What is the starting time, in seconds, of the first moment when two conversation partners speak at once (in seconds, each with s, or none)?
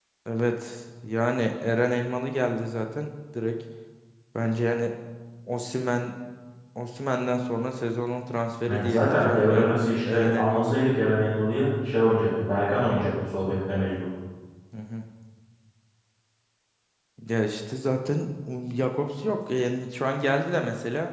8.7 s